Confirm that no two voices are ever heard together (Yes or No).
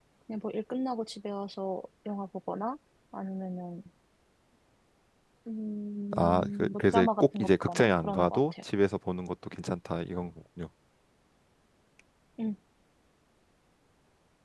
No